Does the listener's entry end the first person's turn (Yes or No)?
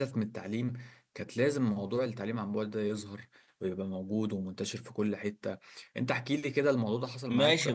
Yes